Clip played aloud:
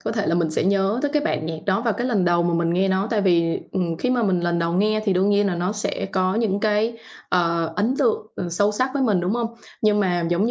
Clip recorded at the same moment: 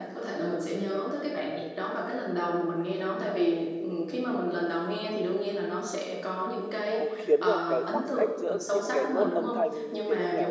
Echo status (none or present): present